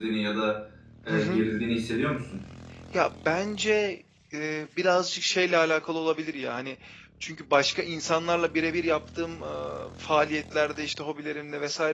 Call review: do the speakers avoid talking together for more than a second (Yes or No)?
Yes